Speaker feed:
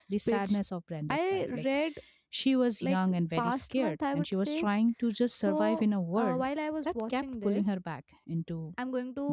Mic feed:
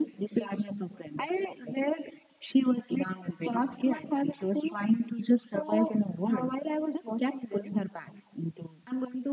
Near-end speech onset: none

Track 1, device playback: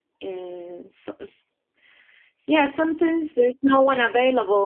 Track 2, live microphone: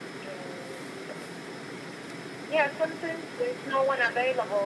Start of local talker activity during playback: none

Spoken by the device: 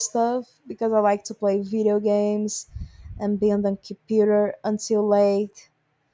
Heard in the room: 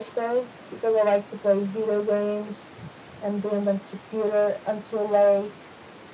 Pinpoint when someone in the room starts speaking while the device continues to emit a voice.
none

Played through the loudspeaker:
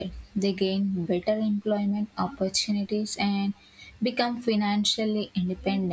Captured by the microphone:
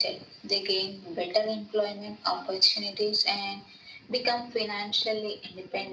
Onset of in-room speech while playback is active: none

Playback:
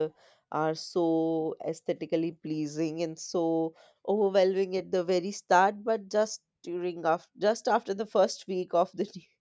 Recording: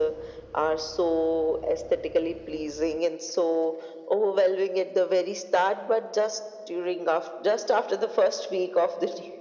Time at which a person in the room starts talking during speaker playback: none

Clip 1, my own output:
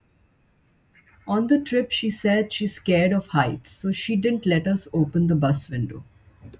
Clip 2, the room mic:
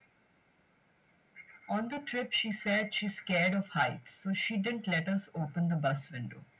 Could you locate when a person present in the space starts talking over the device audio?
none

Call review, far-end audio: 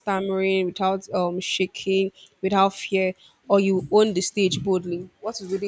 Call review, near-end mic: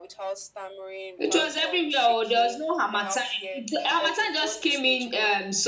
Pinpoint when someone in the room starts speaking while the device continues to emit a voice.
1.2 s

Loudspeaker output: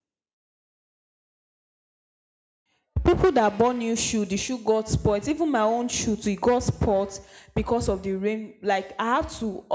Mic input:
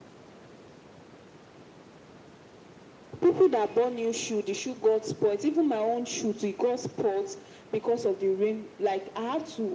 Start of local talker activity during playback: none

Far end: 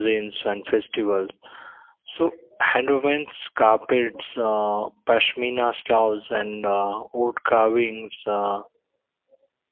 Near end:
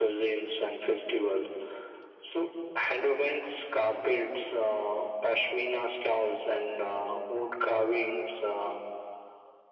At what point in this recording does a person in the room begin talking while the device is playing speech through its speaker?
none

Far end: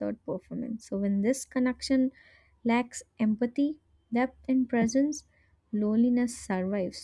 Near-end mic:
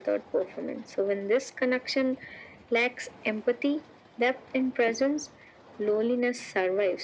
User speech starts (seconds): none

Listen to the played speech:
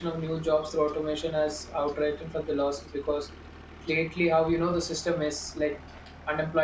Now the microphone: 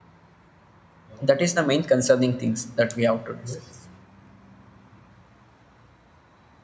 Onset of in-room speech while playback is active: 1.2 s

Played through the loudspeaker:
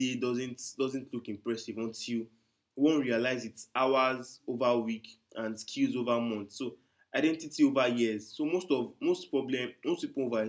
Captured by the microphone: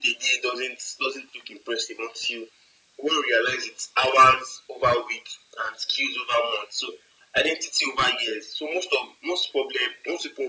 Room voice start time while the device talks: none

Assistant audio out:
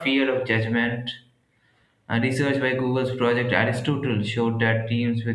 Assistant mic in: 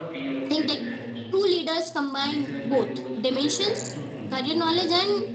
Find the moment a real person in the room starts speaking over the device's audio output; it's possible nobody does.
0.5 s

